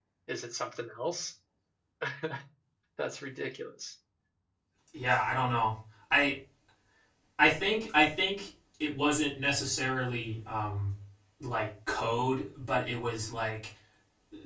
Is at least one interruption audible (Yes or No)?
No